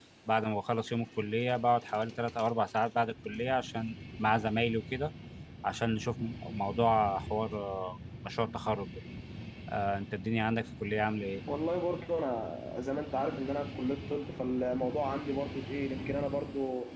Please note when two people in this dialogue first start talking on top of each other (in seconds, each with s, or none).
none